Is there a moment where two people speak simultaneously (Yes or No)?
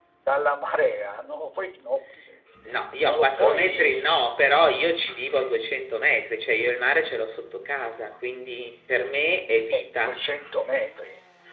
Yes